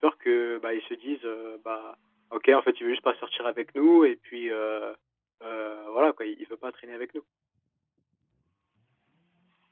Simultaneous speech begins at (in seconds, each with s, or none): none